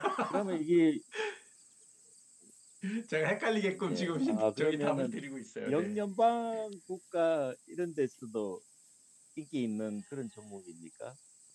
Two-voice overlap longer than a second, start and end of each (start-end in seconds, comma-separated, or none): 3.9-5.1